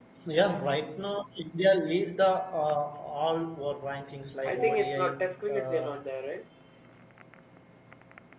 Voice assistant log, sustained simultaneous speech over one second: present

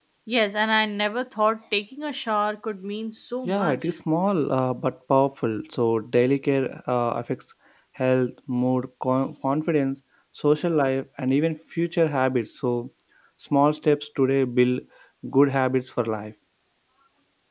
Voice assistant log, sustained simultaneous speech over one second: none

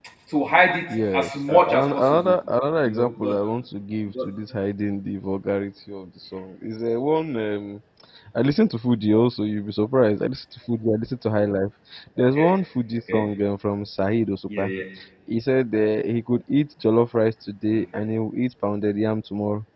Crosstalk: present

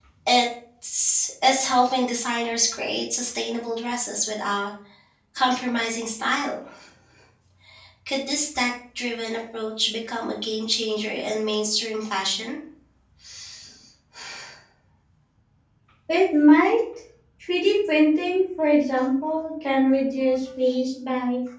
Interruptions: none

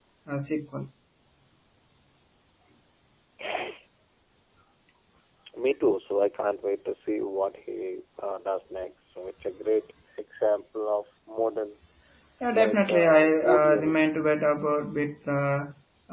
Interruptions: present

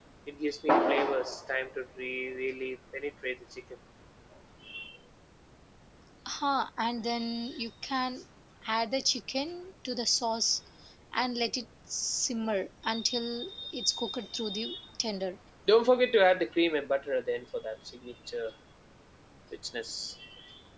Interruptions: none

